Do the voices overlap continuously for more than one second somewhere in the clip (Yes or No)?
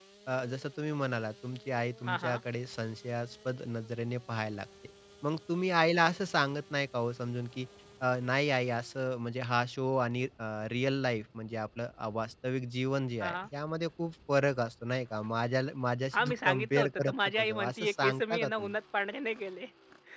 Yes